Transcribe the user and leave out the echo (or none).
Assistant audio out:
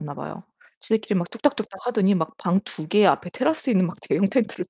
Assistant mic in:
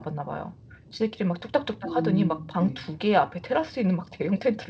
음. 네.